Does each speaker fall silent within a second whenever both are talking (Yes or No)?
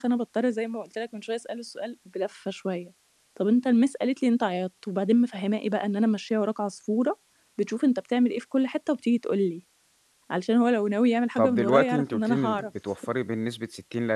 No